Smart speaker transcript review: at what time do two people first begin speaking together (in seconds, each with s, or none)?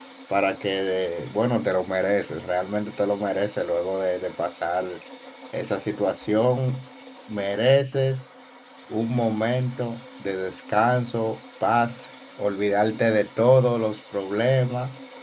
none